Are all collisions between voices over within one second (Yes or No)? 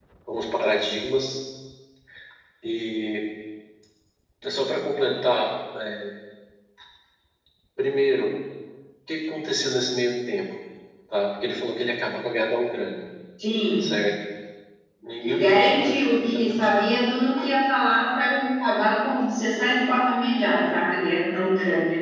No